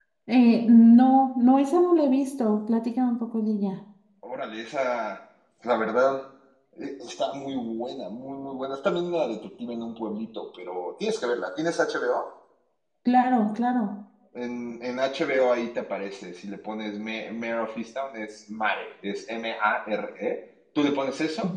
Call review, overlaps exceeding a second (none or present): none